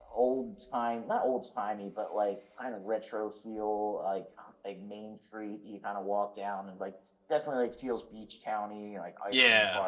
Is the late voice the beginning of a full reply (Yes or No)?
Yes